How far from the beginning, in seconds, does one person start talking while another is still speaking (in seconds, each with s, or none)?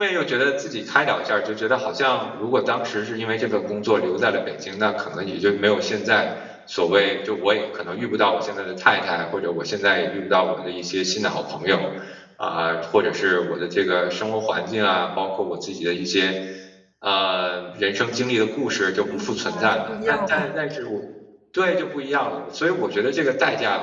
19.1 s